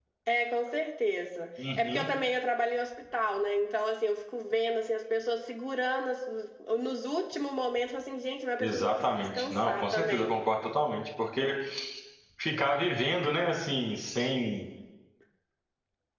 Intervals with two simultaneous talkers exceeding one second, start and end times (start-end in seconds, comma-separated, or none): 8.6-10.4